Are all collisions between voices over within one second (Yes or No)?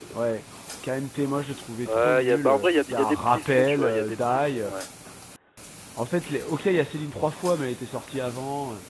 No